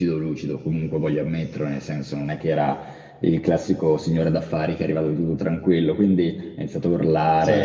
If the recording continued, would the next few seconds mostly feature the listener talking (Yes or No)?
No